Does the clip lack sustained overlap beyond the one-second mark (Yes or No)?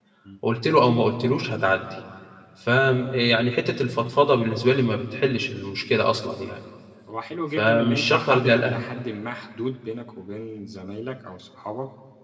No